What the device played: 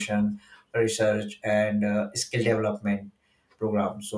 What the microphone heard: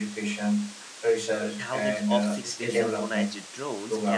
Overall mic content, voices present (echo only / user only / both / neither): both